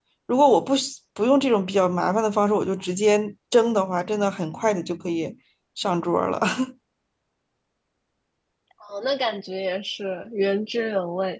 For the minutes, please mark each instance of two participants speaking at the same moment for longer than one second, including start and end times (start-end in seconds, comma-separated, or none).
none